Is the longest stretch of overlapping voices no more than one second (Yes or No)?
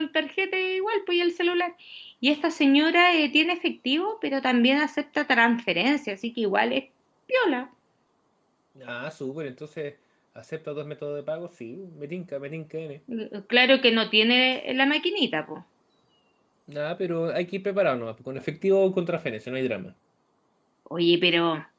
Yes